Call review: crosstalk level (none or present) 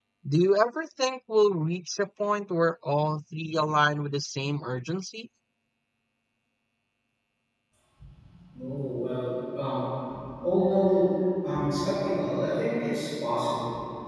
none